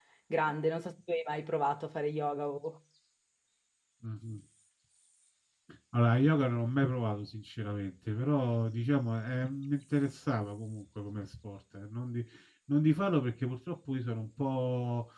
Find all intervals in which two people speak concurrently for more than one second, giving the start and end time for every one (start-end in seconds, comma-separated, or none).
none